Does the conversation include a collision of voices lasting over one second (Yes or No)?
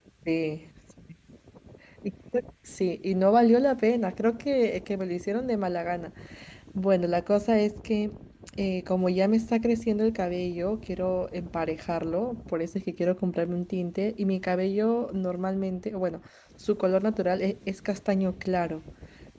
No